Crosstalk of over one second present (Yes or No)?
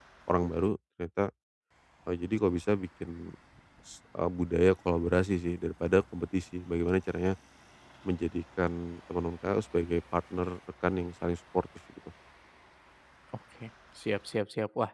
No